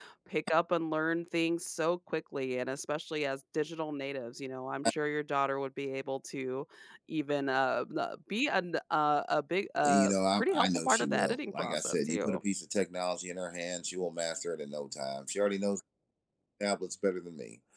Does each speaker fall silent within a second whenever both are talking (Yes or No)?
No